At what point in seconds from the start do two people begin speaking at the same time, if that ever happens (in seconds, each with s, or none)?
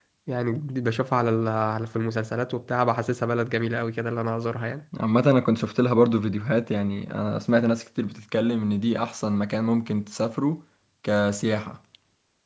none